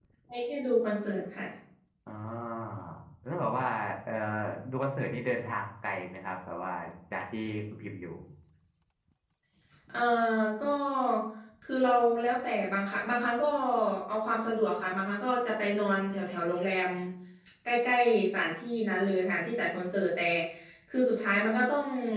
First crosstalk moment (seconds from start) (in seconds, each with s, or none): none